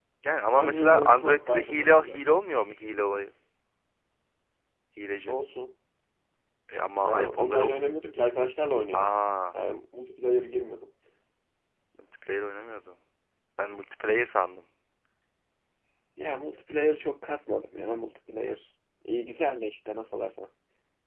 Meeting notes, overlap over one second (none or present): present